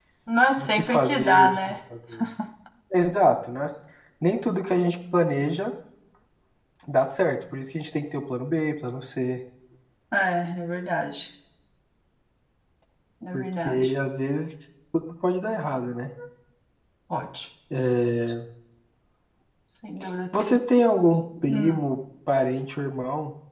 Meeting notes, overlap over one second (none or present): present